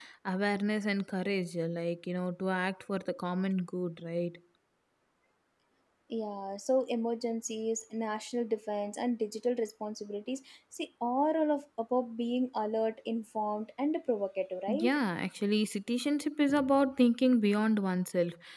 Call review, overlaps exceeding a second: none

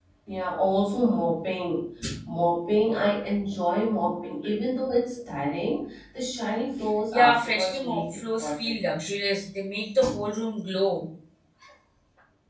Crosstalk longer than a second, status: present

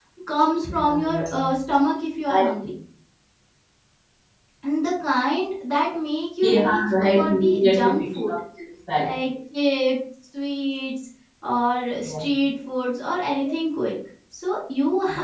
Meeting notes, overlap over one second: present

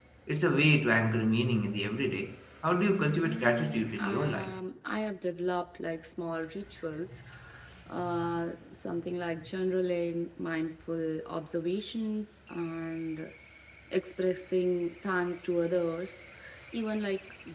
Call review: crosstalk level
present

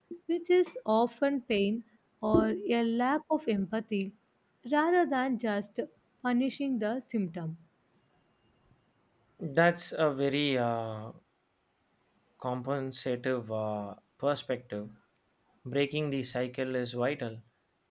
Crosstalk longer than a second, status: none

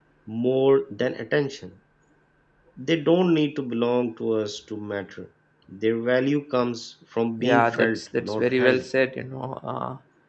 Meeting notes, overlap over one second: present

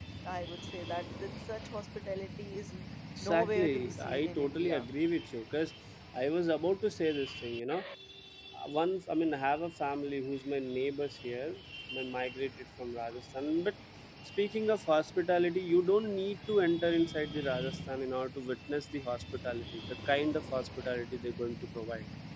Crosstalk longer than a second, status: present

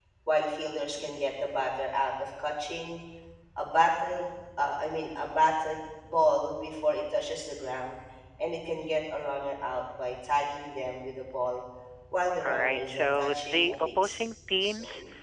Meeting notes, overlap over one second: present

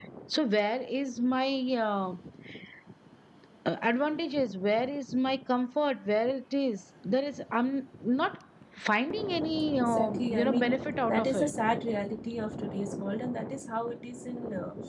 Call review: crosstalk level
present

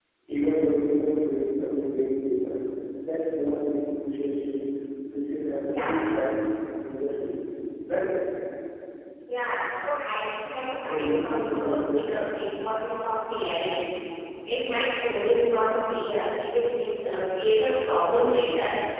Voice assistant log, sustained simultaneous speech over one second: present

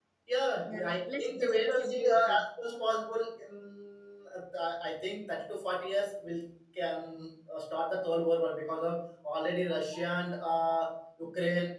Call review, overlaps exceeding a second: present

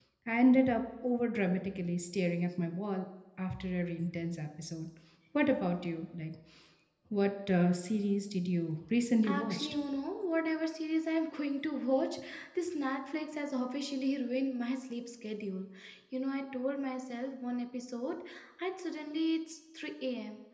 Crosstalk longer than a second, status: none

